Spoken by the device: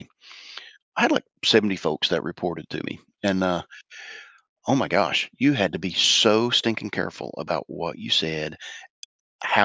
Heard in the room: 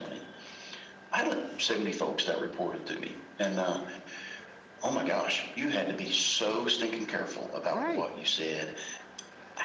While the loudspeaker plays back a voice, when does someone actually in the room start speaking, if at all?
7.7 s

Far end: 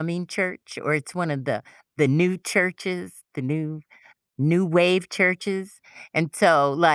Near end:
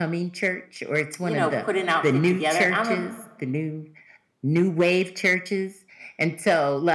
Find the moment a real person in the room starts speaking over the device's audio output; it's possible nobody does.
1.2 s

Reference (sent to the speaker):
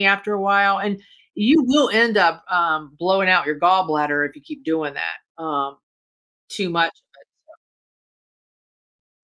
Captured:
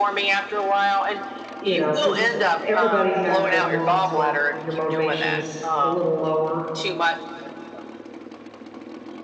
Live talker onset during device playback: 1.6 s

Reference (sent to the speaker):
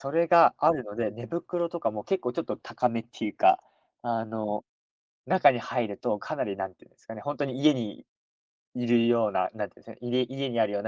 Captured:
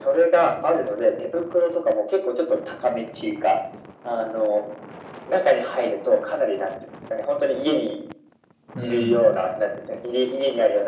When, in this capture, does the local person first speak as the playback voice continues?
8.7 s

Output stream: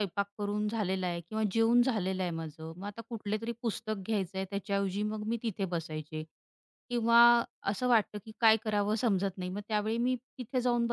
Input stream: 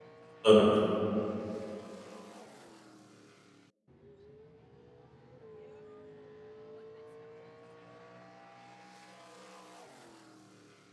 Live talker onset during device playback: 0.4 s

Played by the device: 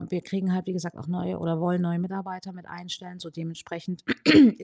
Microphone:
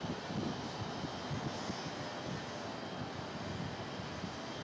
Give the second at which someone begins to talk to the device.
none

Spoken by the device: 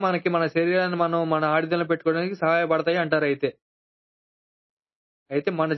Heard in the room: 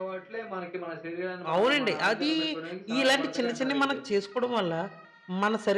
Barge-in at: 1.5 s

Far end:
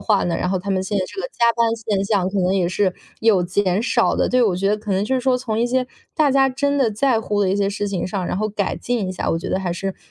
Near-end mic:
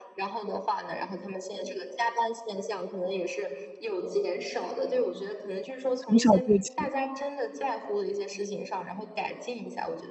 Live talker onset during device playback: 6.0 s

